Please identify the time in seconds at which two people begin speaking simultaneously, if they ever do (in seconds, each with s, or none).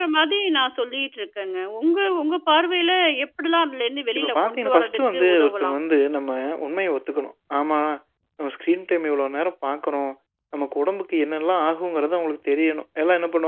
4.2 s